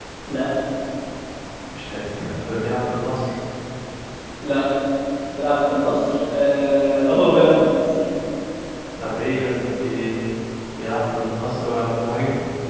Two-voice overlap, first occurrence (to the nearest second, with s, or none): none